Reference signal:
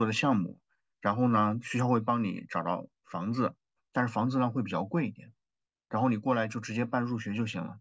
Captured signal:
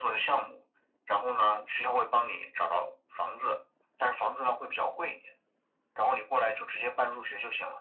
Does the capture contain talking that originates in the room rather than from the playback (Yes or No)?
No